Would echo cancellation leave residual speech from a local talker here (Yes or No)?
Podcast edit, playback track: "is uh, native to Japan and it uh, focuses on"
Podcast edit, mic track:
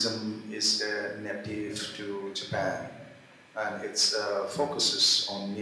No